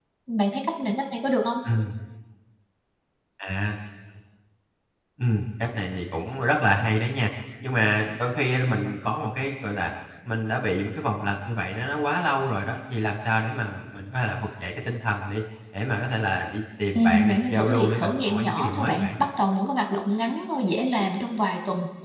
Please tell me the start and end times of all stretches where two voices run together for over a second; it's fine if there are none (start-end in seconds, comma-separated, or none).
16.9-19.1